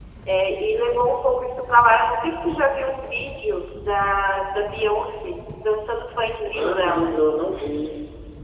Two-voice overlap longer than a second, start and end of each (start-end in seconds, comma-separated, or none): none